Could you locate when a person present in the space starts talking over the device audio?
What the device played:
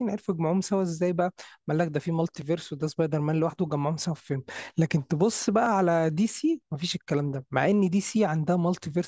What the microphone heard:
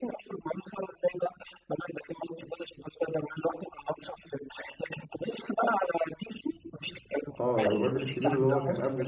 7.4 s

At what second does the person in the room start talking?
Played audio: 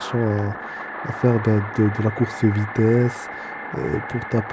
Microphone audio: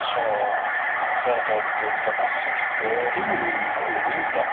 2.8 s

